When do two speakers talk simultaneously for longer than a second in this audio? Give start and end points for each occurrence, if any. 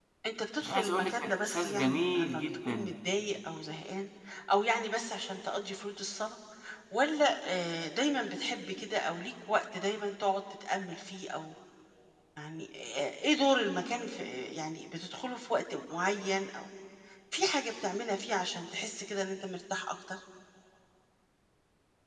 0.6-3.0

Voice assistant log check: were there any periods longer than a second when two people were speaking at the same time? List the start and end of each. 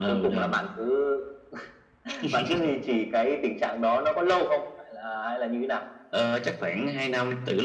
none

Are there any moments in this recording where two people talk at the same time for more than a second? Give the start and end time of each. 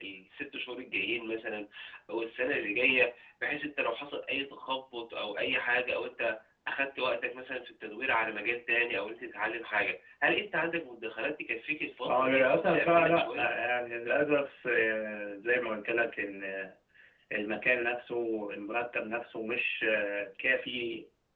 12.1-13.5

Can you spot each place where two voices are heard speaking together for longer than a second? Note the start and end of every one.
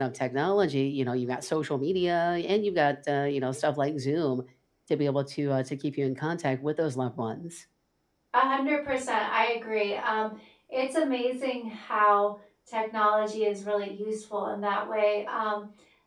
none

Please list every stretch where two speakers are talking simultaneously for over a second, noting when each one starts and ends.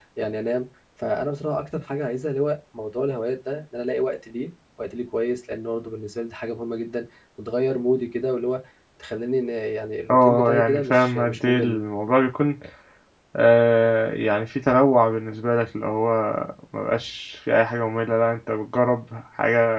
10.1-11.8

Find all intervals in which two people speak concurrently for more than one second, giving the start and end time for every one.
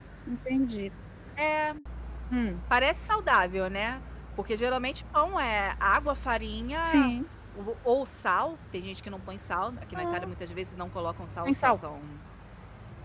none

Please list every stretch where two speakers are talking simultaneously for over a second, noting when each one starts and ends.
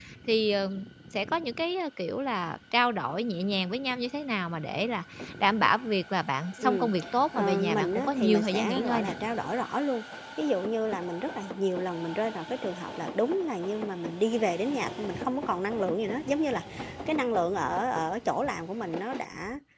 7.3-9.1

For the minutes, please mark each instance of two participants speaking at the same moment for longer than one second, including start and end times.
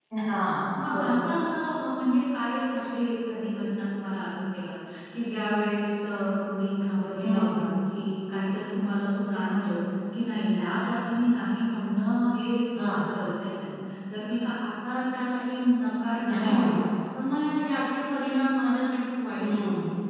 none

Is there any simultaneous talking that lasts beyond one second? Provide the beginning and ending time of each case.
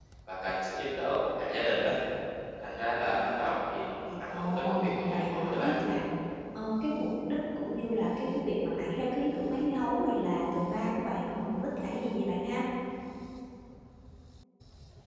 4.3-5.7

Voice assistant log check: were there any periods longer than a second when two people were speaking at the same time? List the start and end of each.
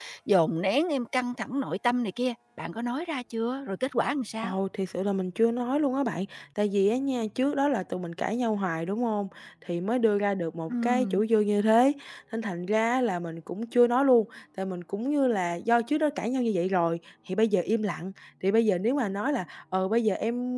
none

